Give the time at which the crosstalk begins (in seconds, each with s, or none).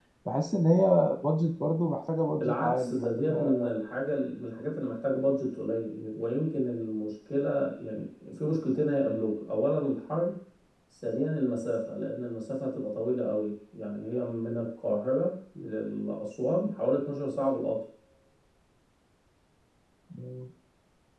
2.3 s